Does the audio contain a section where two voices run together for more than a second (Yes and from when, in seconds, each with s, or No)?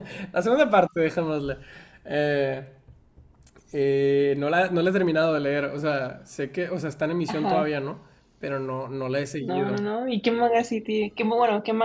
No